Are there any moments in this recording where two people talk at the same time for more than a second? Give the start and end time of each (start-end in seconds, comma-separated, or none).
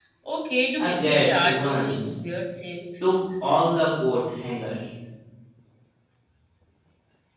0.8-2.1